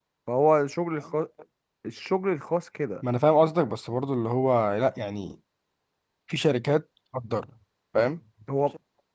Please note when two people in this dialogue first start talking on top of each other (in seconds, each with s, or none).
none